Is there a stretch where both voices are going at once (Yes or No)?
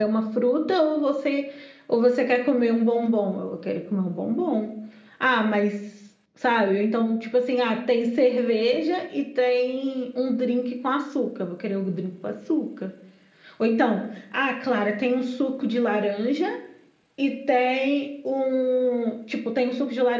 No